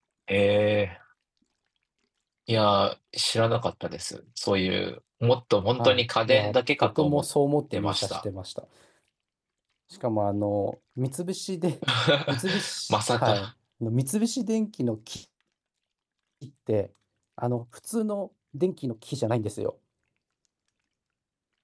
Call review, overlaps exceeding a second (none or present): present